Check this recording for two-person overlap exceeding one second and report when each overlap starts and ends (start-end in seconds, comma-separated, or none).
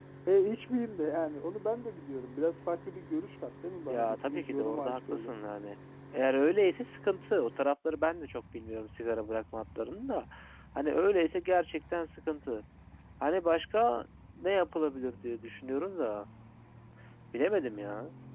3.9-5.3